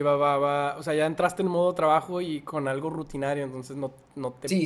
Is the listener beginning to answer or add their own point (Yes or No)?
Yes